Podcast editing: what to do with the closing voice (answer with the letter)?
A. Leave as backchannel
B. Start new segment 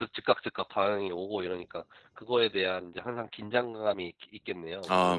B